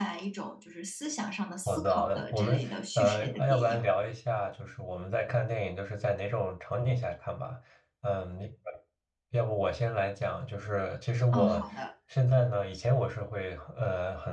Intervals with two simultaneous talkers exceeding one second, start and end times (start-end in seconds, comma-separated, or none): 1.7-3.8